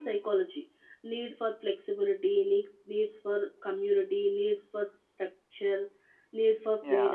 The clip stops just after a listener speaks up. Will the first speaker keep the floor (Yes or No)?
No